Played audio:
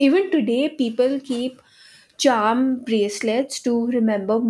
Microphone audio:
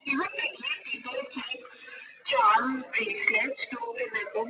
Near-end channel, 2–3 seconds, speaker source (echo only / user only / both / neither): echo only